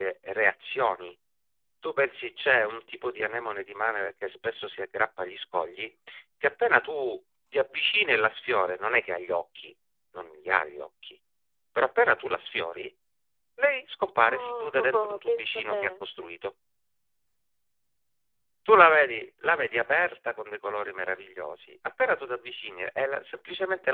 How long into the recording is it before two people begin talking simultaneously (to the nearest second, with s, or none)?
14 s